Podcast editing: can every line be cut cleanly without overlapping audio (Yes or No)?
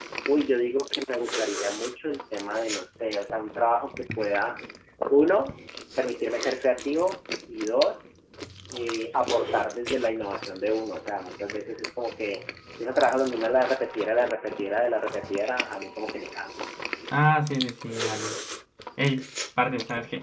Yes